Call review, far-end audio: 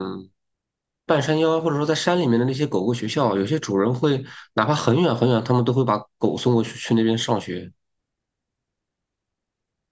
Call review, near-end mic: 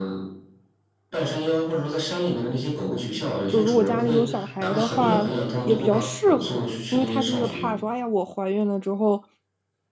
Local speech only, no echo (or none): 就如果家里有小孩的话也比较适合，因为它就是怕说，哎呀，我怀孕了之后，